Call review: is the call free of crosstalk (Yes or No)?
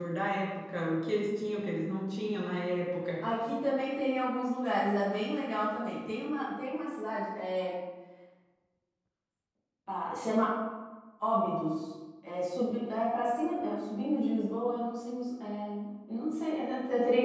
Yes